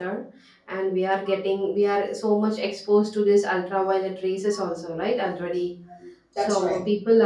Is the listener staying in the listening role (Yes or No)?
Yes